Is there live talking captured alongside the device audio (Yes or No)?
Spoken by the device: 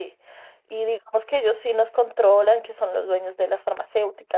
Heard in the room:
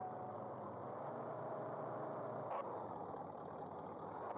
No